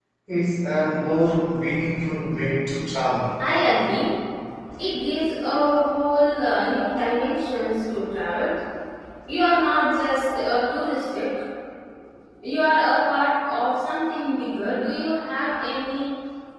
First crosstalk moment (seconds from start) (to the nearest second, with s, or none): none